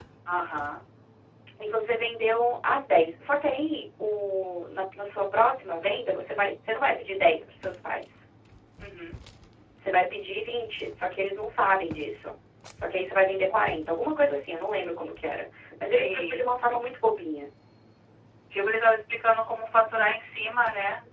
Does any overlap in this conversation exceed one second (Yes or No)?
No